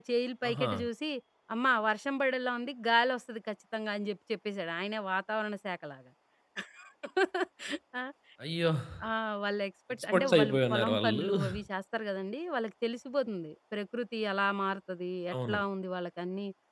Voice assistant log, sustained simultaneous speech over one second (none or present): present